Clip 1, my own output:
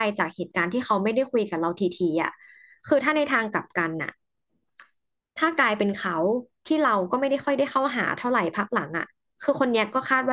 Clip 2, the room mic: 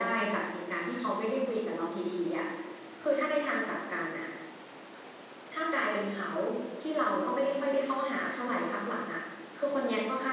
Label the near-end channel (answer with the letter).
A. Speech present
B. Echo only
B